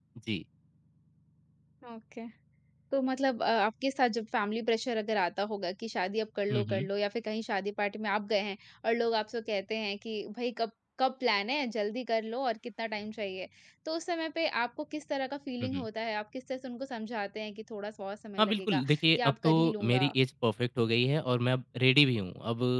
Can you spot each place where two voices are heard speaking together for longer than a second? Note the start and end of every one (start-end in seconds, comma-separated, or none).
18.4-20.1